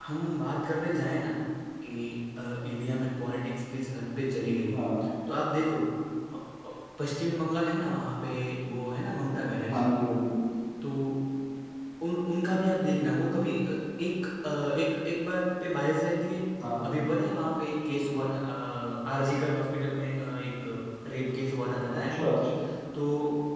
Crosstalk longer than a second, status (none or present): none